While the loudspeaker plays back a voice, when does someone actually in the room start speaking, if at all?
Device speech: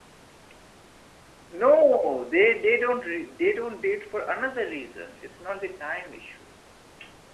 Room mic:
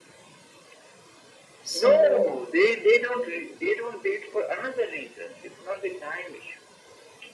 1.6 s

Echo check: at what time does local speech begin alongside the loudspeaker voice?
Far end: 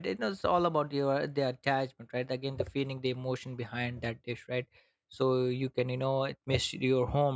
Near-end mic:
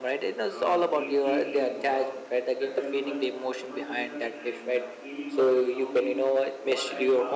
0.5 s

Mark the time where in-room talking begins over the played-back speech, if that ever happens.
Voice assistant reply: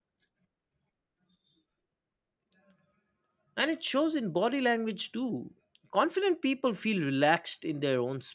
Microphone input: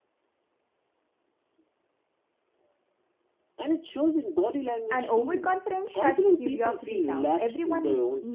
4.9 s

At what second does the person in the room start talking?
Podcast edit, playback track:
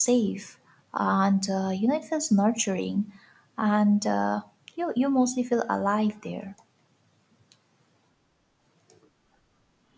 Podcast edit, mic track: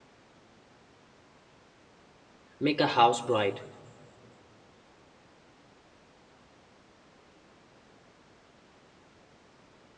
2.6 s

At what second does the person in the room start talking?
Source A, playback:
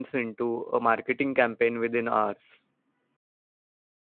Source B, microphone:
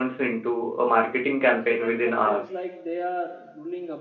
1.6 s

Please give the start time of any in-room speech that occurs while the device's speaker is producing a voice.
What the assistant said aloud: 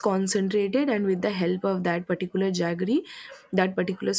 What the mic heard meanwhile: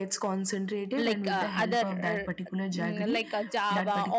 0.9 s

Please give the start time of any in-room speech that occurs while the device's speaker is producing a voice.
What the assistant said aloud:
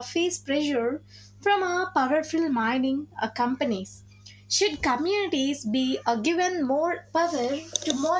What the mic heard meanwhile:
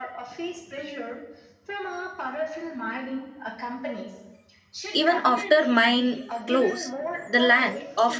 4.9 s

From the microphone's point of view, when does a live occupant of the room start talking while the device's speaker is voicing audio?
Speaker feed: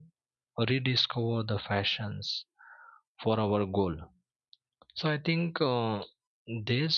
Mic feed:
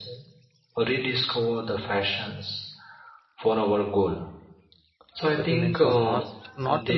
5.3 s

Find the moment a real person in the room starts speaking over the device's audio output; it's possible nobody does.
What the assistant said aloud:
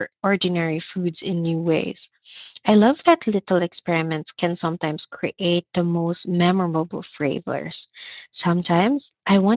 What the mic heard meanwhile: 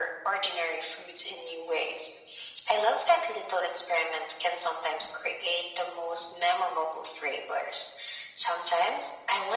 none

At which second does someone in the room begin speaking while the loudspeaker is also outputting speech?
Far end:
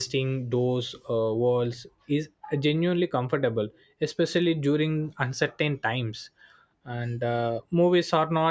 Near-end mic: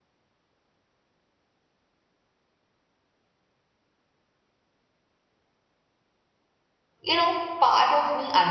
7.0 s

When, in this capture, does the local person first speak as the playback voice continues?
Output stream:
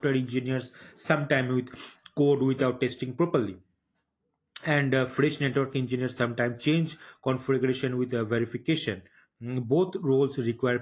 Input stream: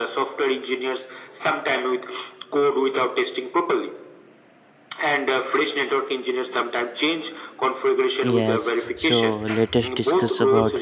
8.2 s

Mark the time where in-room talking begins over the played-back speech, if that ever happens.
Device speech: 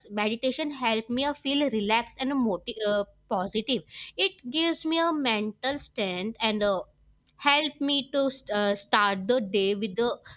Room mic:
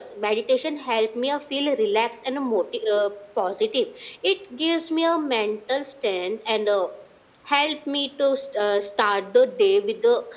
none

